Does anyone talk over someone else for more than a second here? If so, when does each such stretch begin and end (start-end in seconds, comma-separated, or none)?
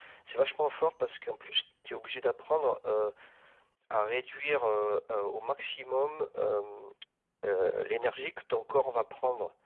none